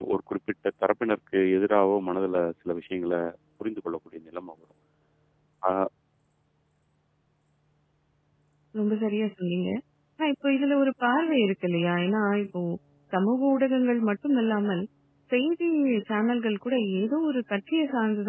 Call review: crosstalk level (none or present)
none